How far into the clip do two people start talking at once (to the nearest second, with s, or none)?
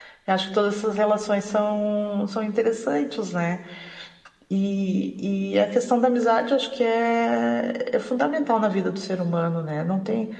none